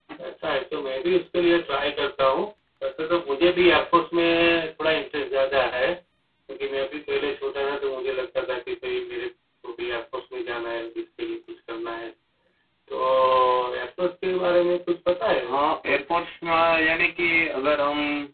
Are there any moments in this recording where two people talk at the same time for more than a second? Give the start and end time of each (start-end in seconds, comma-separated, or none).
none